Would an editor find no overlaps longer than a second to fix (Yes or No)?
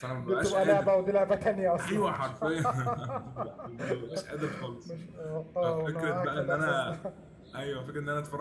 No